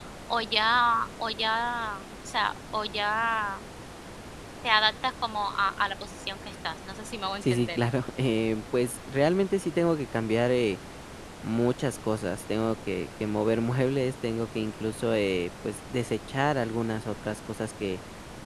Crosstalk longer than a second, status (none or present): none